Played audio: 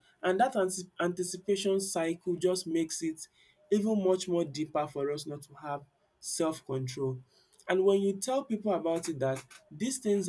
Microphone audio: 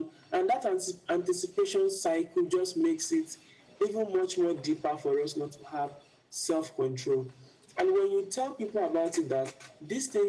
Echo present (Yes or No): Yes